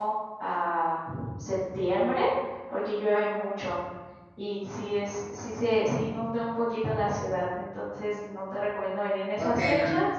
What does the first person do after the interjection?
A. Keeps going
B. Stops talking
B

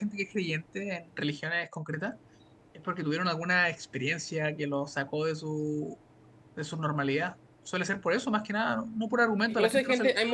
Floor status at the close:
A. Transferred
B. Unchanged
A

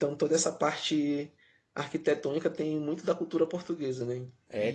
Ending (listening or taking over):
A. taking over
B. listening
A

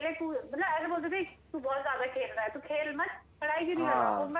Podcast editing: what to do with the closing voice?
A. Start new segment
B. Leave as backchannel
B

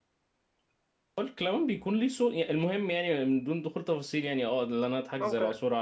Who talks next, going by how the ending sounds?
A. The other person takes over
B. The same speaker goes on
B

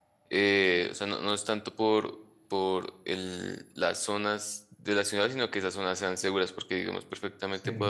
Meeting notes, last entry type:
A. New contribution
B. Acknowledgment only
B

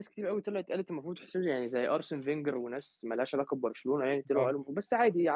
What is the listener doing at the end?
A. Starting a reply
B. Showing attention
B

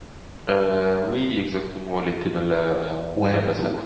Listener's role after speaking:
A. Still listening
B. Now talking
B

